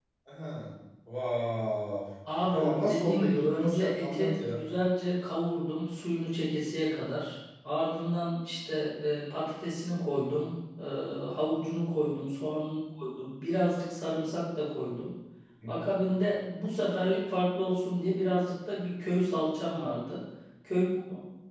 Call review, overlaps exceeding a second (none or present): present